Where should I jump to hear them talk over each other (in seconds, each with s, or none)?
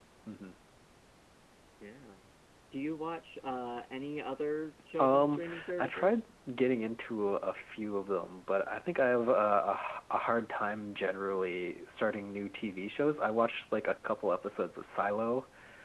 5.0 s